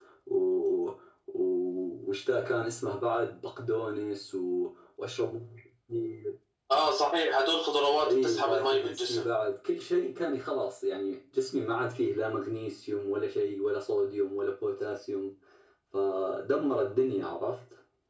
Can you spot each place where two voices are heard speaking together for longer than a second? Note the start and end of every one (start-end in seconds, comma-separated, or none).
8.0-9.3